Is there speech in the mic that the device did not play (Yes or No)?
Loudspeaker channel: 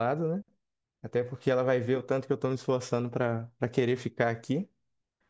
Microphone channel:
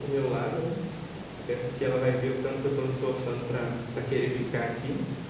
No